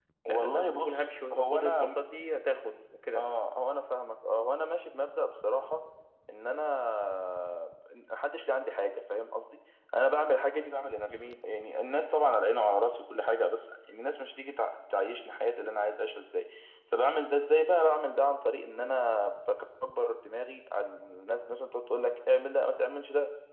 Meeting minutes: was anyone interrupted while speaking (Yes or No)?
Yes